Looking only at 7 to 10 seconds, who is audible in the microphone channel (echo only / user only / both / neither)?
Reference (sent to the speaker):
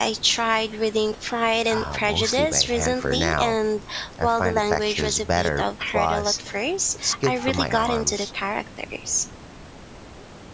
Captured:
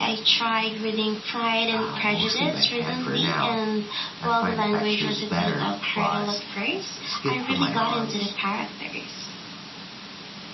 echo only